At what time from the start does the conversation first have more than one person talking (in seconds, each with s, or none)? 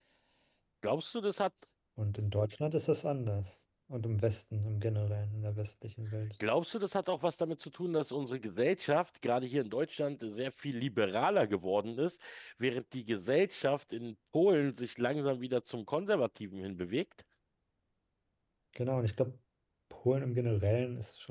none